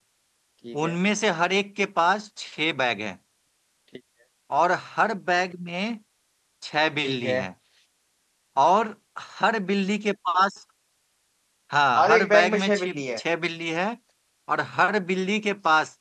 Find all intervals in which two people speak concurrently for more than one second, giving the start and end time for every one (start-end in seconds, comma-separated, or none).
12.0-13.2